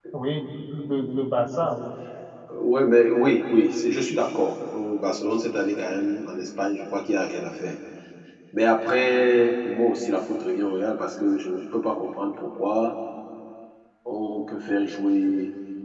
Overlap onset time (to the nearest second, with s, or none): none